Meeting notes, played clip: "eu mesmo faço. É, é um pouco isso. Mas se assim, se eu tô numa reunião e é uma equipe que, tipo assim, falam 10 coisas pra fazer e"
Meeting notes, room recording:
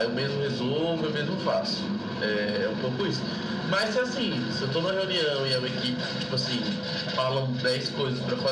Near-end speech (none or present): none